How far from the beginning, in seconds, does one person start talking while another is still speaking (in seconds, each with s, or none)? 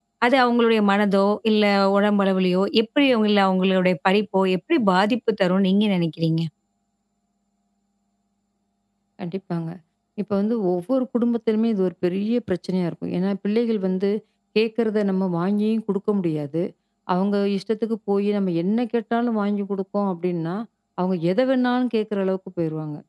none